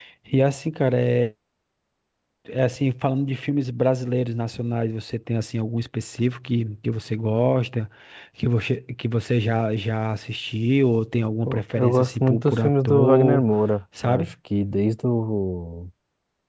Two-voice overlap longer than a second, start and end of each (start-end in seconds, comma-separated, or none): 11.4-13.4